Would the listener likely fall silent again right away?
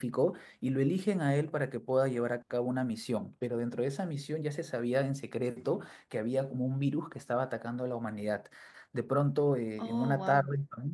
Yes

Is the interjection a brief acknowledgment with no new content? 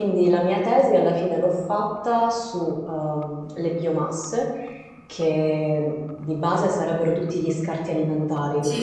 Yes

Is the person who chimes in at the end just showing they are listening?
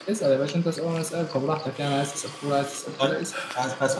No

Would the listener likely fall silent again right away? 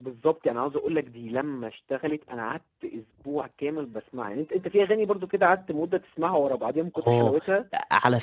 No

